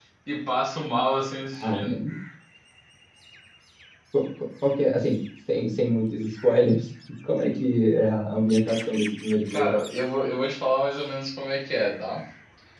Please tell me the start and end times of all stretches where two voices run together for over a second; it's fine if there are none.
none

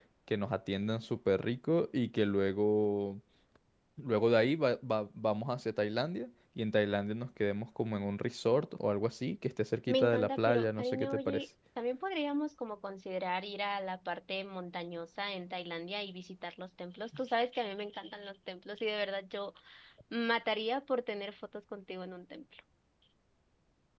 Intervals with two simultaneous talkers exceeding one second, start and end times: 9.9-11.4

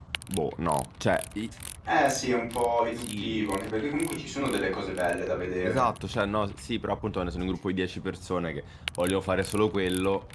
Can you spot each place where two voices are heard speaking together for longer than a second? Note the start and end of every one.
none

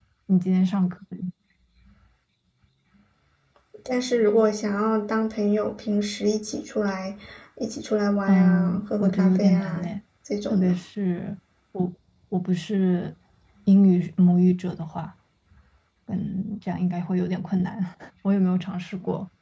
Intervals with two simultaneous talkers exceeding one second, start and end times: 8.3-9.8

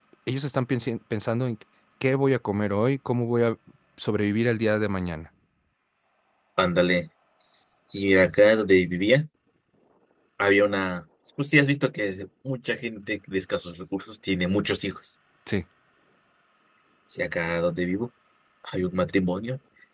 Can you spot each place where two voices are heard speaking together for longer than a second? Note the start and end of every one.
none

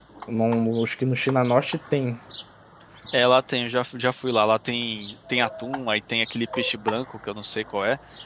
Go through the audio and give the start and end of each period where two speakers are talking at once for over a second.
none

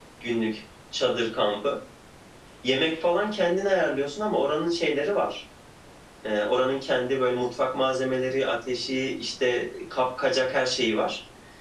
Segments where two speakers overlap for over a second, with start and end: none

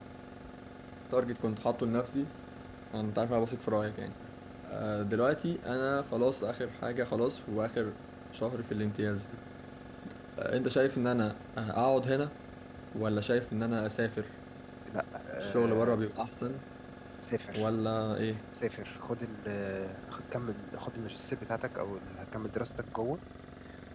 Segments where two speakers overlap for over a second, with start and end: none

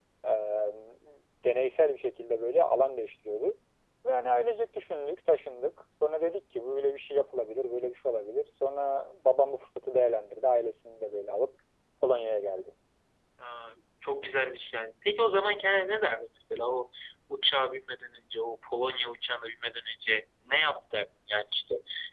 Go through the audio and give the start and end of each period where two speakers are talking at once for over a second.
none

